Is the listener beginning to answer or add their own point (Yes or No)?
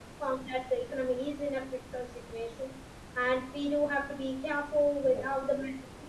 No